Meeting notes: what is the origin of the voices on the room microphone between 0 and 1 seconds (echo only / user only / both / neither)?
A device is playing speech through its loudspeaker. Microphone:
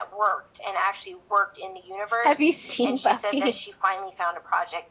echo only